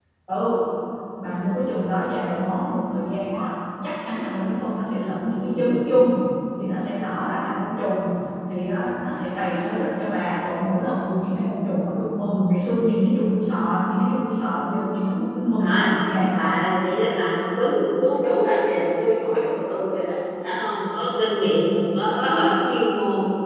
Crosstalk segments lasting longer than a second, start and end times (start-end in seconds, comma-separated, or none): none